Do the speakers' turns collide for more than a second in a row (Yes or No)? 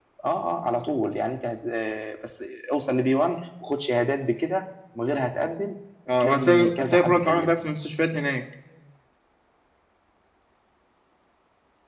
Yes